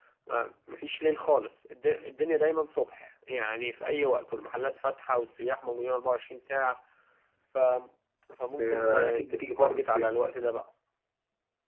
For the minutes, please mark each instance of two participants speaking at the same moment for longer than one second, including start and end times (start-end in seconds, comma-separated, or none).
8.6-10.2